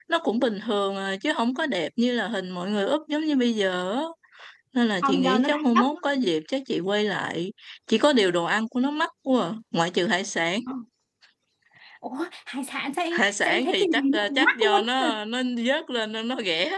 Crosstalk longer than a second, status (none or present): present